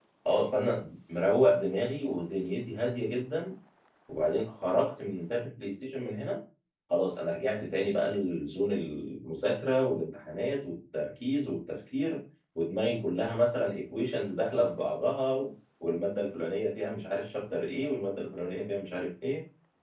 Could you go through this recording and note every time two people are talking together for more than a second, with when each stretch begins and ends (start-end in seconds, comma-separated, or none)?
none